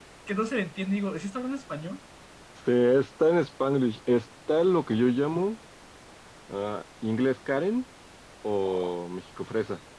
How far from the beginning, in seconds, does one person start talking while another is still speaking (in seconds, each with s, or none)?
none